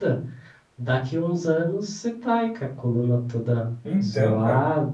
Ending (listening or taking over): listening